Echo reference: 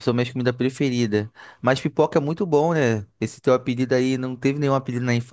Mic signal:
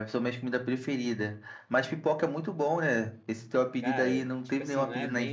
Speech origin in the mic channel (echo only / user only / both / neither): both